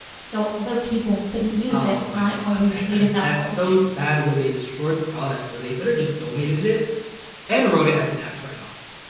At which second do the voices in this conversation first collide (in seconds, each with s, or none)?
1.7 s